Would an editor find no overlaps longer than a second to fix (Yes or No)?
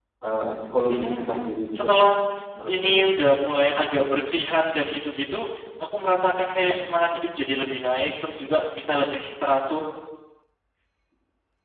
No